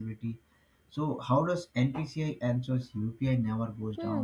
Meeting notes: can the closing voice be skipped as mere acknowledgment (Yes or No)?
No